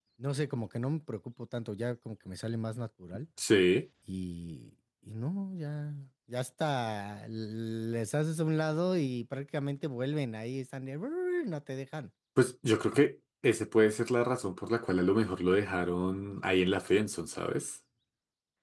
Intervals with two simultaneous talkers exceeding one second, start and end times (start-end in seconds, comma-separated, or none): none